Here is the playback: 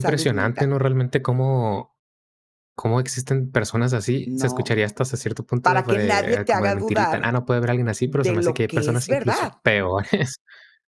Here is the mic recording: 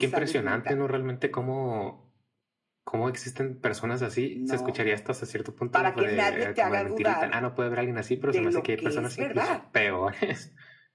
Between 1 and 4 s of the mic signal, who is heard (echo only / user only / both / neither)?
echo only